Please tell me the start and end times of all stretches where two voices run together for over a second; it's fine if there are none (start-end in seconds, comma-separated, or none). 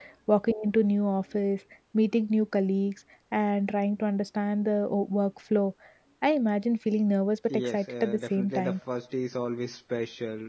7.5-8.8